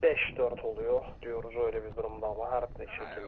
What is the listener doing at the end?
taking over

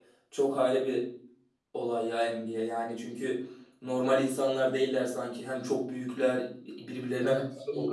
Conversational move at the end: taking over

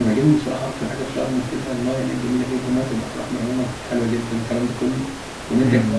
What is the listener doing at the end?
taking over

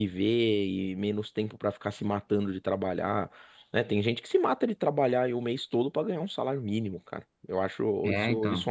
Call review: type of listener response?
listening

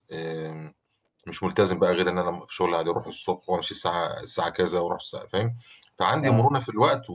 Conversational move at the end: listening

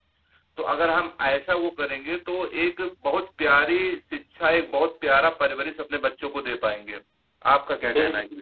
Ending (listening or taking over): taking over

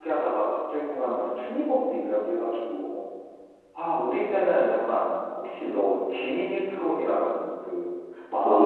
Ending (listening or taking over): taking over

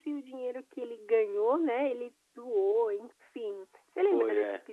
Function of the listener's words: taking over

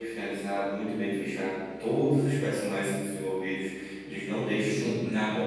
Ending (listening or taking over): listening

